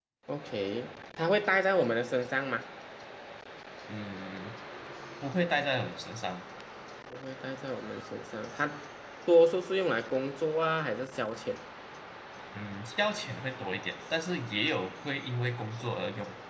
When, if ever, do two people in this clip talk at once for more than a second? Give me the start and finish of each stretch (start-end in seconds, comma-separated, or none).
none